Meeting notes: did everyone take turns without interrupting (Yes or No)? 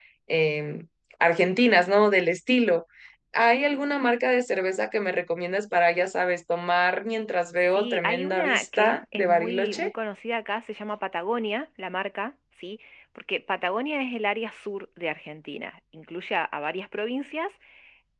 No